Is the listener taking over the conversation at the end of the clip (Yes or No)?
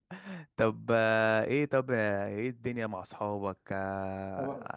No